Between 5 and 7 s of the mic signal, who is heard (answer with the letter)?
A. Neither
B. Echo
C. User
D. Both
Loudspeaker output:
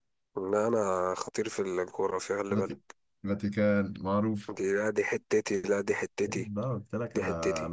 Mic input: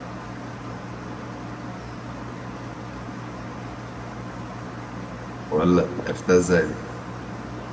C